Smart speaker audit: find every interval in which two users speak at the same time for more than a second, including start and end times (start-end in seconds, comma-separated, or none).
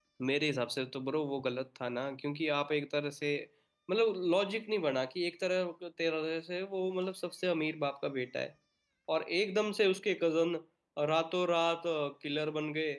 none